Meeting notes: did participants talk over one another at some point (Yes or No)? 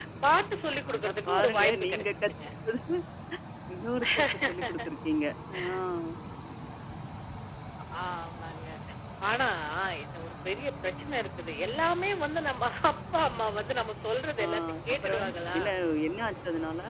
Yes